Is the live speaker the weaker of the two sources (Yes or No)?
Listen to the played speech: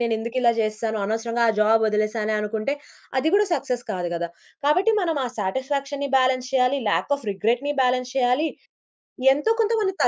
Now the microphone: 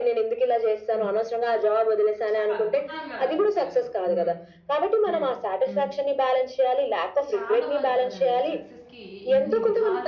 Yes